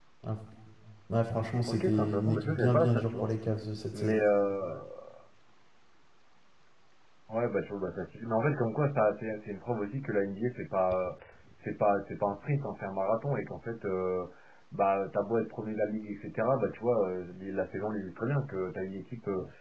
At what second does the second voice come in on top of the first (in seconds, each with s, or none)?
1.7 s